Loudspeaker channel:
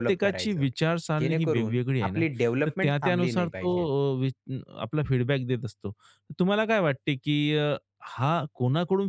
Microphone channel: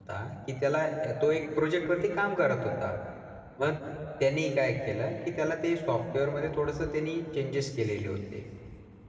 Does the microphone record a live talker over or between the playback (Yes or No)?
Yes